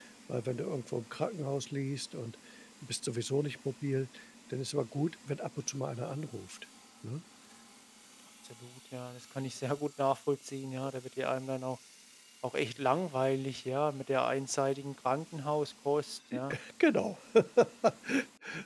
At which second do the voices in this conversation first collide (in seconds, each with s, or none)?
none